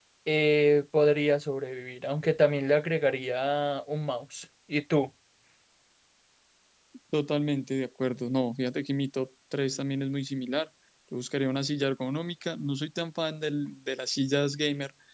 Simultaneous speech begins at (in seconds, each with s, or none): none